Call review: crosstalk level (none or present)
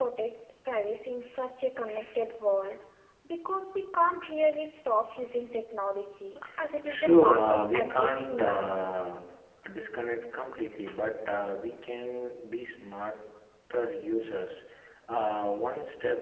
present